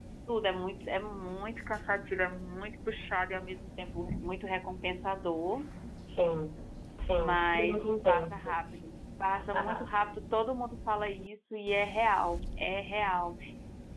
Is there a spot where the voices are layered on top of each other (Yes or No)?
Yes